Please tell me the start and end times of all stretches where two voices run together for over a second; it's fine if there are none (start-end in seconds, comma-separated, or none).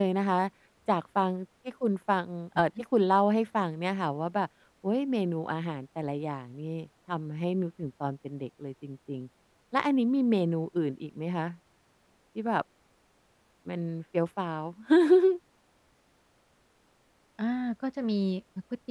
none